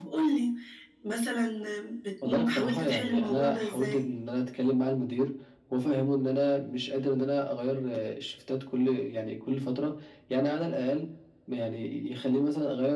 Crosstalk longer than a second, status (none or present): present